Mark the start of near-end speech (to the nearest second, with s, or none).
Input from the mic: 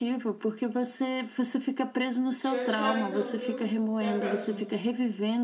2 s